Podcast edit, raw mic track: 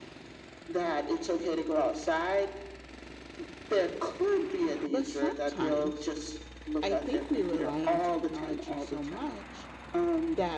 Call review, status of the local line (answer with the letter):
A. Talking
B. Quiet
A